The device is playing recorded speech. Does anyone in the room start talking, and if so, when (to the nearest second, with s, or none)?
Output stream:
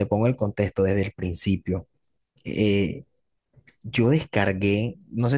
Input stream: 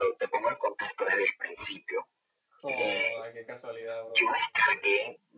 3 s